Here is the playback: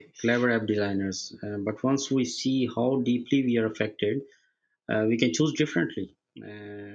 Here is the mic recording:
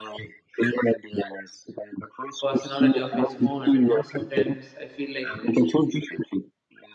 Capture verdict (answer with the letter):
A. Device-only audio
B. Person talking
B